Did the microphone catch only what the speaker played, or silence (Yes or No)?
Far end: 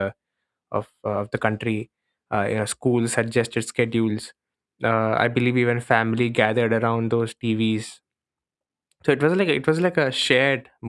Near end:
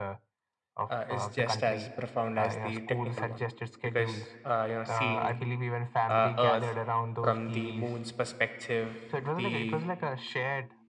No